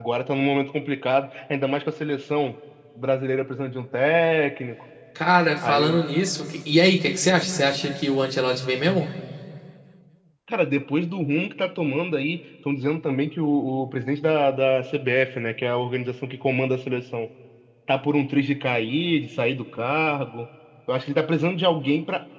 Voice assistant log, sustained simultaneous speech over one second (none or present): none